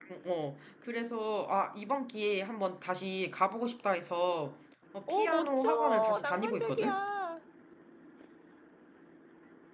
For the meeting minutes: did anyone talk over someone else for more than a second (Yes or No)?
Yes